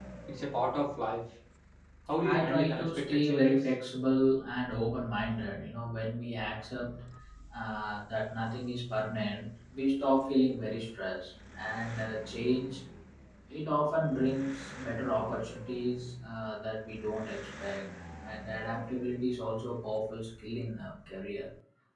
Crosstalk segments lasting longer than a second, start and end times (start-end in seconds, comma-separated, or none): 2.2-3.6